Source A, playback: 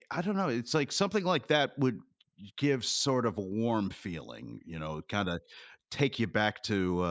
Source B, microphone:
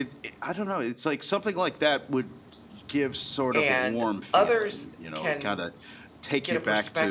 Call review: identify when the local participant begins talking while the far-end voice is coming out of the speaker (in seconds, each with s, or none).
3.5 s